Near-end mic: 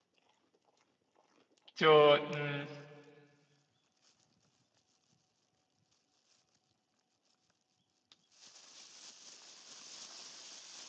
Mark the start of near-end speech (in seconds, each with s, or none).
1.7 s